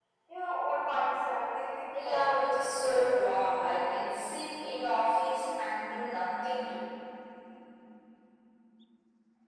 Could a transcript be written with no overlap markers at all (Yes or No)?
No